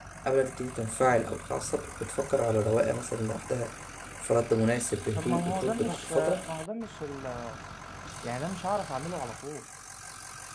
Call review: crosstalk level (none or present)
present